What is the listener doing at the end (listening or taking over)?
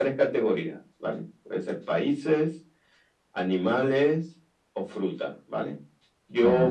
listening